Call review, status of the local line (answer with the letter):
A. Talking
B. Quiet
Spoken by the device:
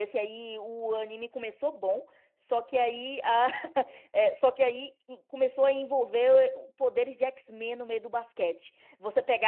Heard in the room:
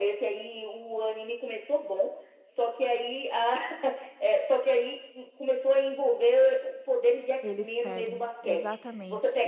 A